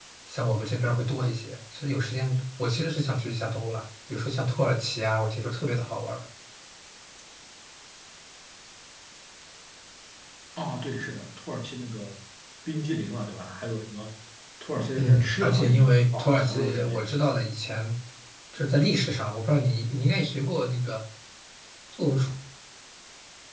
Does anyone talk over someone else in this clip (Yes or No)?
Yes